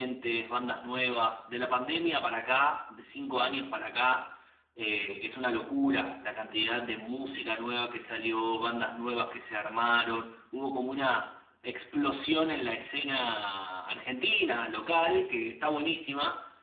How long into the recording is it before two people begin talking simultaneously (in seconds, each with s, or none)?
none